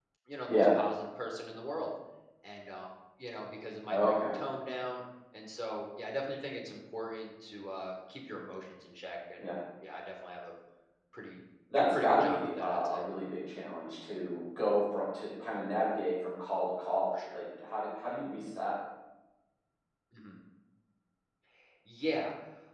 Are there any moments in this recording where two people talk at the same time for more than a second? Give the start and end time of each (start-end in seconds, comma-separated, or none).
11.8-13.0